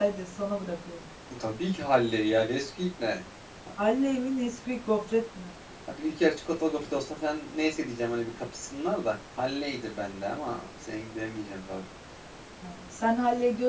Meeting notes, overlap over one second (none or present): none